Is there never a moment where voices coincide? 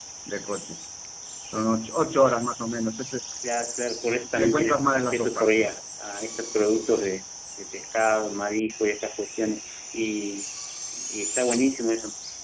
No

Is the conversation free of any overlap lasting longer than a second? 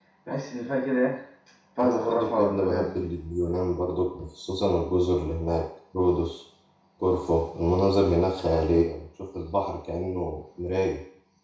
No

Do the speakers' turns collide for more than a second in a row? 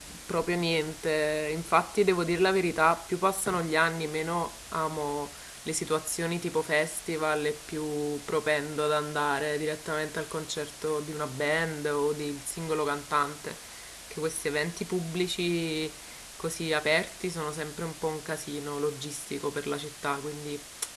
No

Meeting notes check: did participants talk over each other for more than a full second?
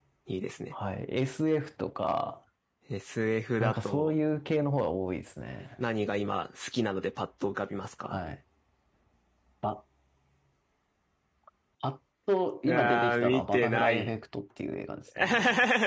Yes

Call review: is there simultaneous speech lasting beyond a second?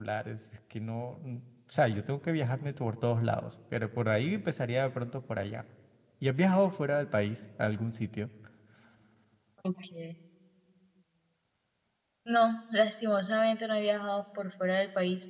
No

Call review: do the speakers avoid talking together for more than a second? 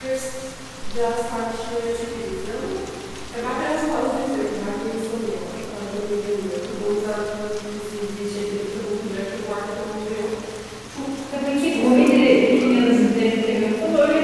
No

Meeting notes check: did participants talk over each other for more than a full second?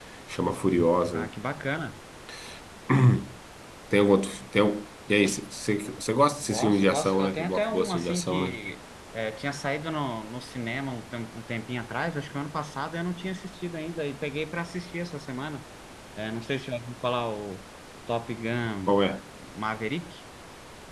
Yes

